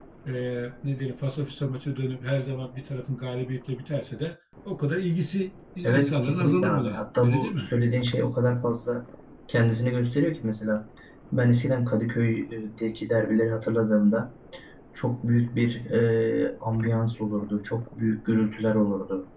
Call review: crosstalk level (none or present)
present